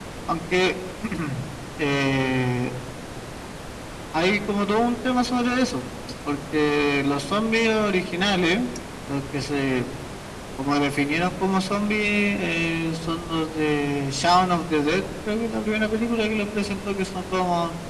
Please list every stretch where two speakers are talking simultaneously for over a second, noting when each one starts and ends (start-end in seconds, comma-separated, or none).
none